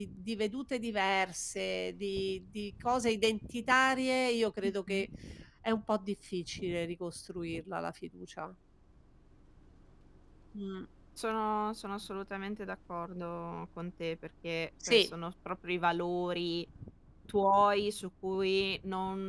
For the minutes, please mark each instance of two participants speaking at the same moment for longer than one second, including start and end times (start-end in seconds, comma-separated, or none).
none